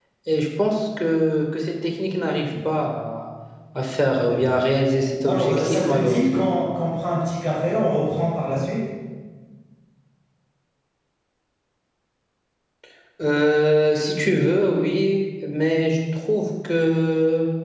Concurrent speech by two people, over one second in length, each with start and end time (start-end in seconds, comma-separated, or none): 5.2-6.5